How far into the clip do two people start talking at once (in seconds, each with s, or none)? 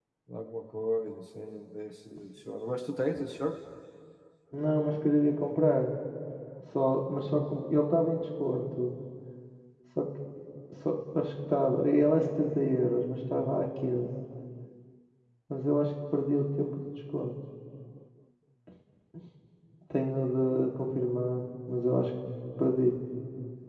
none